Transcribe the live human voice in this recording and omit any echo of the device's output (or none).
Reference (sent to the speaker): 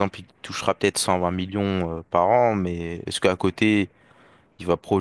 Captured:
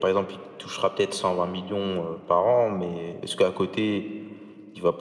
none